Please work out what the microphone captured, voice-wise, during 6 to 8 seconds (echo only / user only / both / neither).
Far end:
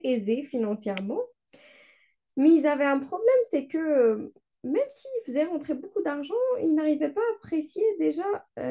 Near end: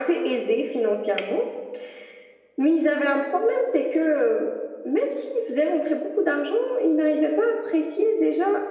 echo only